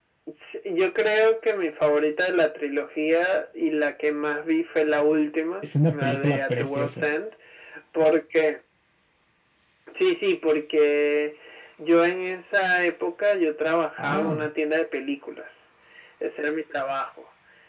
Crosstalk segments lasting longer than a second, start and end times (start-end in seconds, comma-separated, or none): 5.6-7.1